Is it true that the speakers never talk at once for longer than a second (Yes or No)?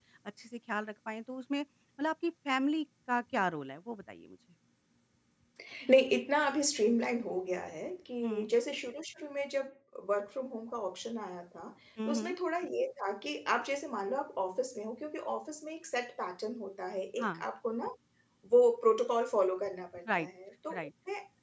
Yes